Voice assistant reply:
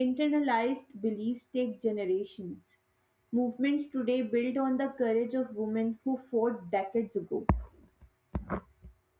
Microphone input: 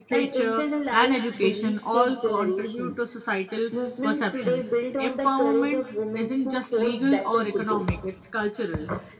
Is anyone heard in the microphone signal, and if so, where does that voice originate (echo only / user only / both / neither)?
both